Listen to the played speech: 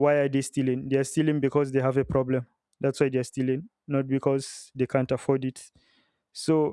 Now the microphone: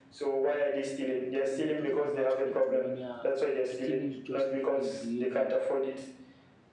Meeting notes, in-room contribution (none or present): present